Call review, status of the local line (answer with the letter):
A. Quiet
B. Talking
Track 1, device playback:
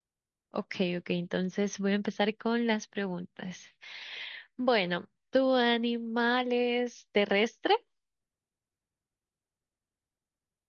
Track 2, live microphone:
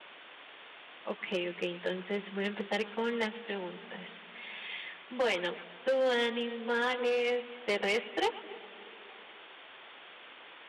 A